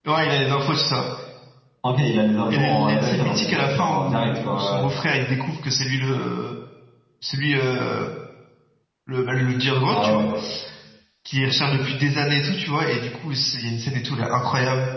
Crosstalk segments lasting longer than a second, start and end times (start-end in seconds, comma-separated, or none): 2.5-4.9